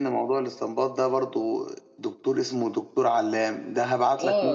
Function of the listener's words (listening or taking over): taking over